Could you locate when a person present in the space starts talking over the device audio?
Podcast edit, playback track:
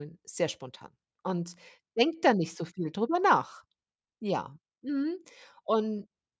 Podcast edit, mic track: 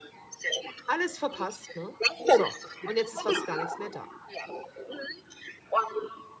1 s

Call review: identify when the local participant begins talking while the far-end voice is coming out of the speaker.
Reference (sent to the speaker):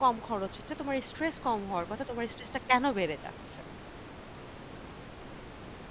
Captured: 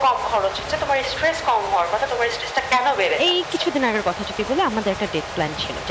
3 s

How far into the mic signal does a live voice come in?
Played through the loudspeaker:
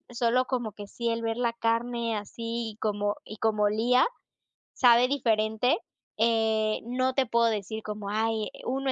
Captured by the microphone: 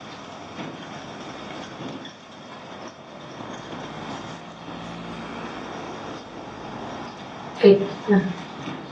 8 s

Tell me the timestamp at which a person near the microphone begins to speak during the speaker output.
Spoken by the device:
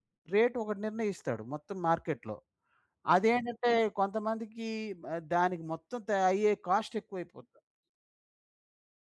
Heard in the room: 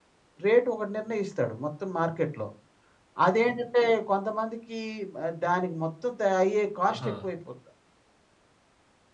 7 s

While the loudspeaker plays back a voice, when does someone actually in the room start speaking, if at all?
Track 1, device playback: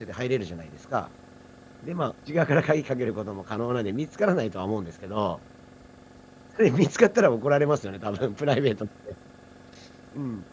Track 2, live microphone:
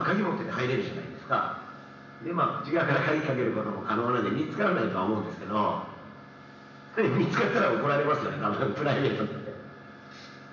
none

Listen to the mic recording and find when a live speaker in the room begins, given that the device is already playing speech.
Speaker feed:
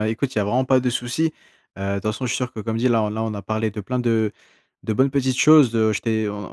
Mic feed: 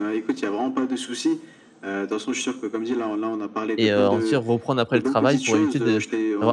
4 s

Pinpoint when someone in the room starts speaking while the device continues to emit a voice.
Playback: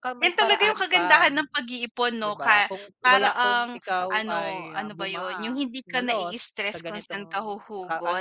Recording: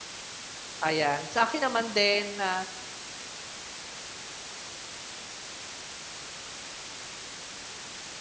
1 s

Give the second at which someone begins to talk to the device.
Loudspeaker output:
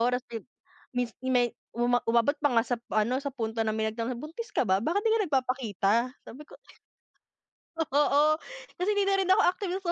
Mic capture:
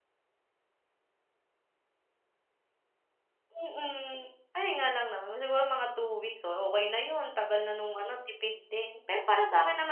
4 s

